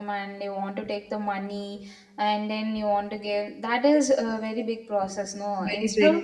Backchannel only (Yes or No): No